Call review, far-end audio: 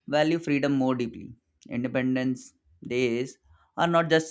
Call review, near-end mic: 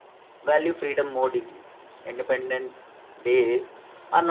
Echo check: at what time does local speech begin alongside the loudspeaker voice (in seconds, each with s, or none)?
none